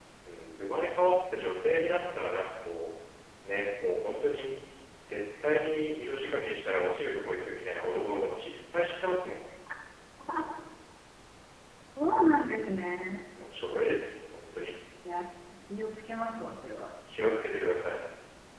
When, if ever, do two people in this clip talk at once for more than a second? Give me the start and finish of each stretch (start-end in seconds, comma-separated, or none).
none